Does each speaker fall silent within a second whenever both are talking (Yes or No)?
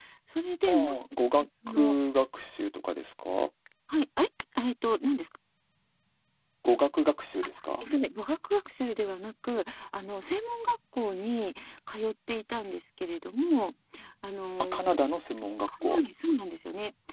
Yes